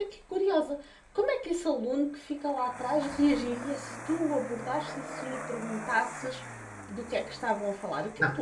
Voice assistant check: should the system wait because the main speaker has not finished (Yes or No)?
No